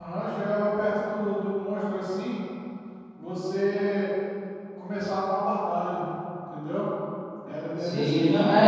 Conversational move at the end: taking over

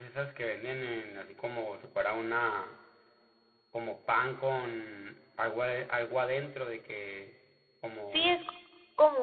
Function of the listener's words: taking over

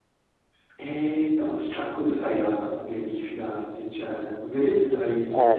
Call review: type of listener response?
listening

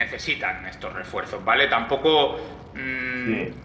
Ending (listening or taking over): listening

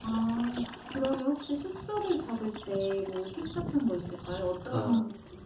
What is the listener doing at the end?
taking over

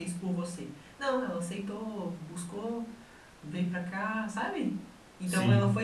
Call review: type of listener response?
listening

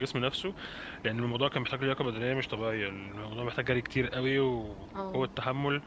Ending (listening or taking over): listening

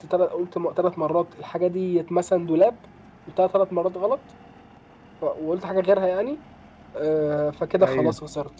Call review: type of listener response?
listening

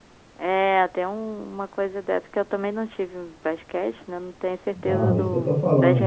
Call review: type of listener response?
taking over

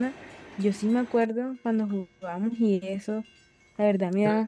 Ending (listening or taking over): listening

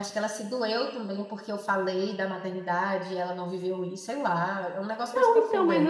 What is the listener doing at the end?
taking over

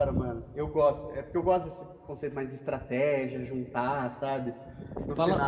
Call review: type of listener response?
taking over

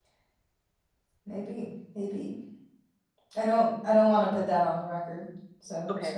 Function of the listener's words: taking over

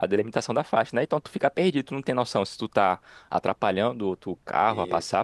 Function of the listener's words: listening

